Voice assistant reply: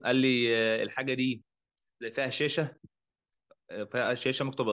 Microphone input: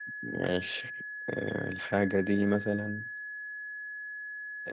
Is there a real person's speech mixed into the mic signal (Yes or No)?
Yes